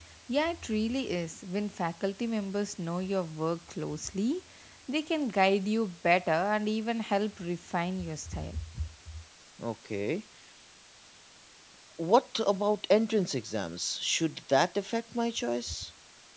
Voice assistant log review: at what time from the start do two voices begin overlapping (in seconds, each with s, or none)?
none